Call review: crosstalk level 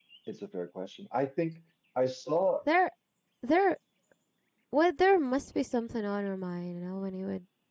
none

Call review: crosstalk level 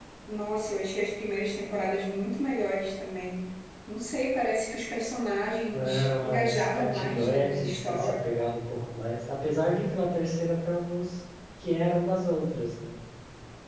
present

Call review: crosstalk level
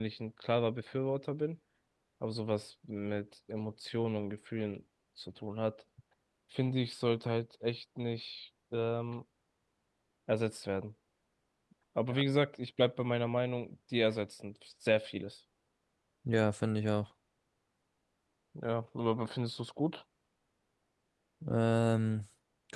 none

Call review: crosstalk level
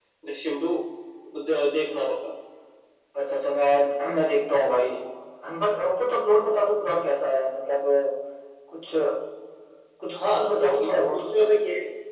present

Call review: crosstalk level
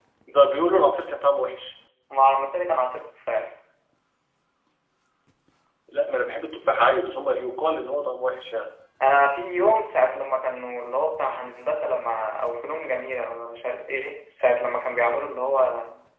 none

